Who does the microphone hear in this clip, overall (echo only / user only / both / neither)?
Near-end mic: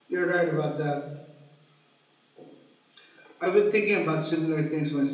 echo only